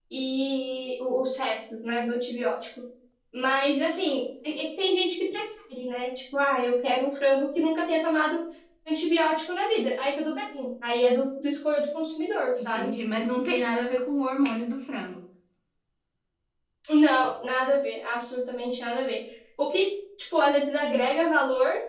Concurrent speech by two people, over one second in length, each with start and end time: none

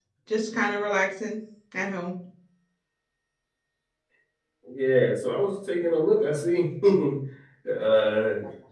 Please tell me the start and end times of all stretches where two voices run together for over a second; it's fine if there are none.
none

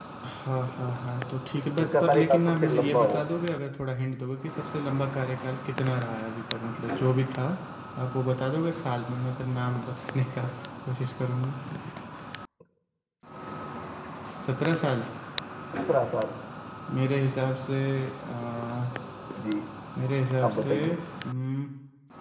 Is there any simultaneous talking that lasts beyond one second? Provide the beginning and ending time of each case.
1.8-3.2

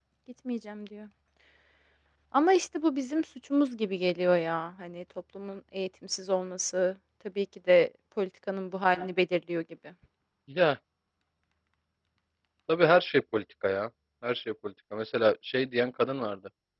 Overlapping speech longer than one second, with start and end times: none

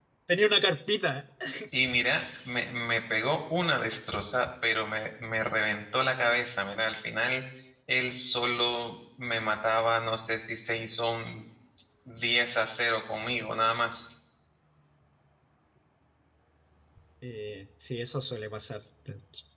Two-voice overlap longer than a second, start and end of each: none

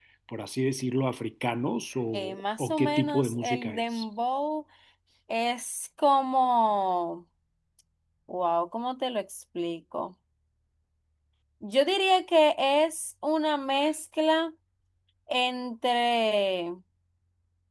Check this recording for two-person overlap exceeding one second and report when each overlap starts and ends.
2.1-4.0

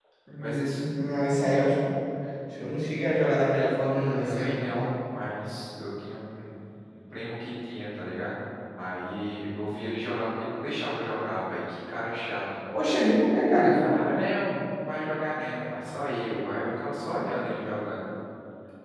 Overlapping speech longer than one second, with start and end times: none

